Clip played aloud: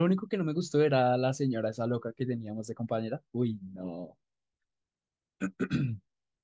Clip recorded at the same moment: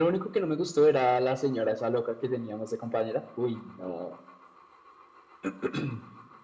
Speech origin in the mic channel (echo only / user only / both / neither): echo only